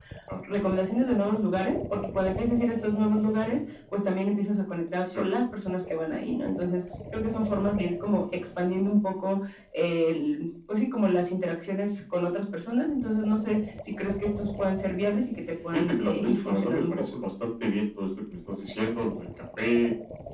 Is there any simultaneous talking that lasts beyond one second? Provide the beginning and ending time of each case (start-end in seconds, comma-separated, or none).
15.7-17.0